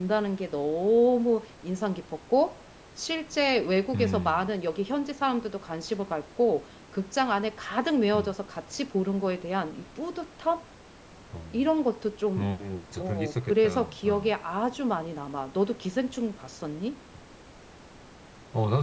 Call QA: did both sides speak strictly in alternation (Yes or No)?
No